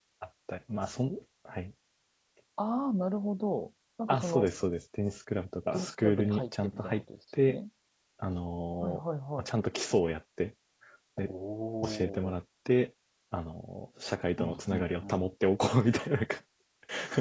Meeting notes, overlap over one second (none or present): present